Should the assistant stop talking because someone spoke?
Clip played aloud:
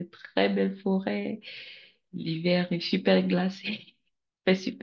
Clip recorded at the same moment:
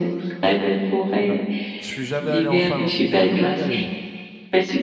Yes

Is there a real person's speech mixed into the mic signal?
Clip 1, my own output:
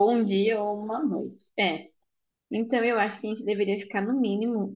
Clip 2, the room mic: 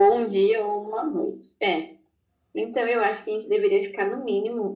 No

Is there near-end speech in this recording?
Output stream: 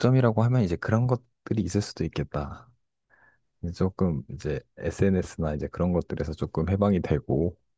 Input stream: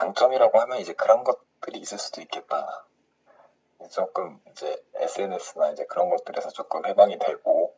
No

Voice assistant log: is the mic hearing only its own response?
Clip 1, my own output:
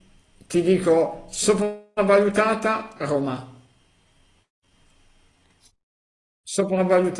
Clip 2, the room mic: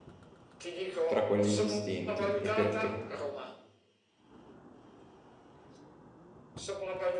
No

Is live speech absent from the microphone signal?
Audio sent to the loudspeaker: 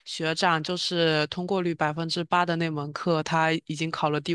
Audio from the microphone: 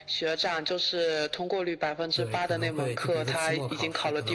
No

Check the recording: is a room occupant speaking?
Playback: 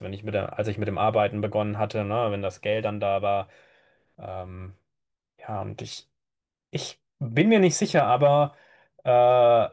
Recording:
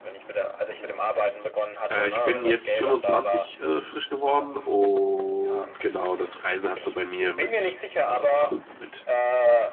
Yes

